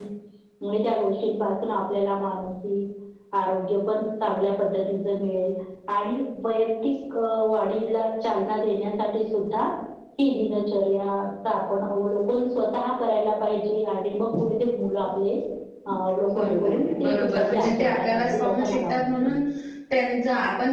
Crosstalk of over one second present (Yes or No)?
Yes